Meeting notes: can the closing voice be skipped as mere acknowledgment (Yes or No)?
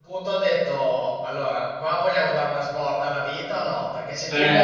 Yes